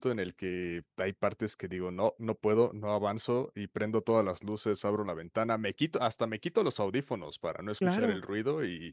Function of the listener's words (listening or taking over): listening